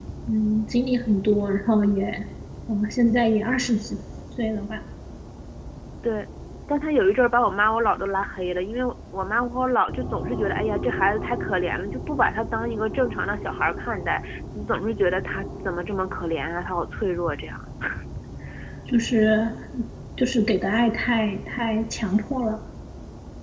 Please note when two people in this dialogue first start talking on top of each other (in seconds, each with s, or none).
none